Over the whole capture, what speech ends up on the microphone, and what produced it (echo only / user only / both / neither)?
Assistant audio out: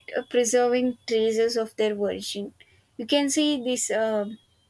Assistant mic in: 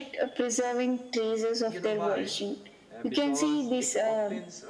both